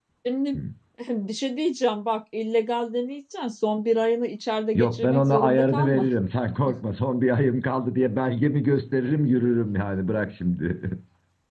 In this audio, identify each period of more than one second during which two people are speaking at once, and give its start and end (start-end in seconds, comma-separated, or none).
4.8-6.1